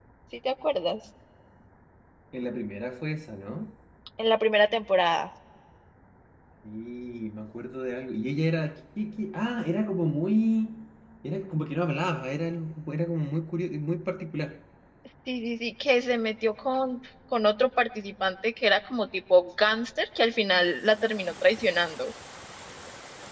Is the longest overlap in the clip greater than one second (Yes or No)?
No